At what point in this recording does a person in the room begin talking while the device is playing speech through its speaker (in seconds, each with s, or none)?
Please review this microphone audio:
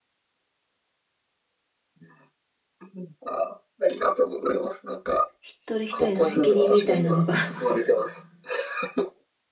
5.4 s